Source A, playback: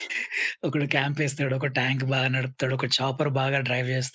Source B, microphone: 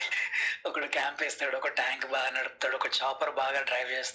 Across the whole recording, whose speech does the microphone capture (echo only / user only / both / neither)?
echo only